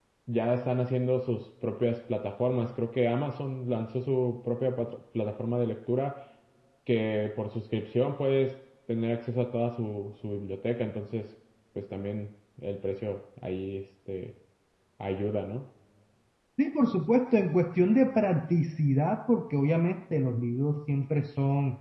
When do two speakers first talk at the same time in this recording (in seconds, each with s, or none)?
none